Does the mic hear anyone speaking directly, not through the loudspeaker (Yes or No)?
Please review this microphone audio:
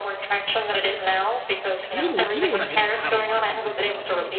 Yes